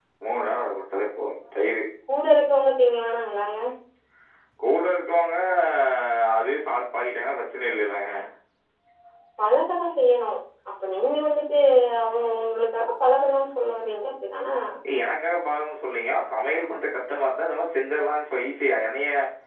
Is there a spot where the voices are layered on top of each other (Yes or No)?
No